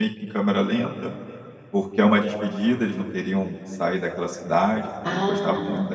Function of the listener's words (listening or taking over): listening